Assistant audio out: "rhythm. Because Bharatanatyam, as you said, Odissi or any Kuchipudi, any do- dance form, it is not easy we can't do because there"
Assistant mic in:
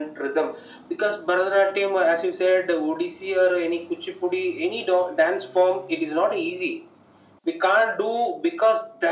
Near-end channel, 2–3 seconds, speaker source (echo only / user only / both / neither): echo only